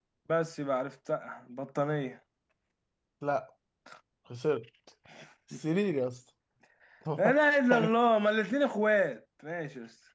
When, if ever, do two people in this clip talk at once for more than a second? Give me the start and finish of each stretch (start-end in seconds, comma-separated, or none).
none